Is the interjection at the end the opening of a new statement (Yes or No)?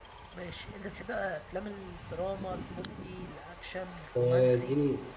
Yes